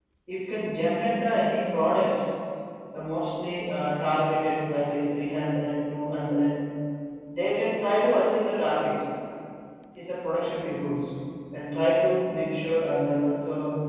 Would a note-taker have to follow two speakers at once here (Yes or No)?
No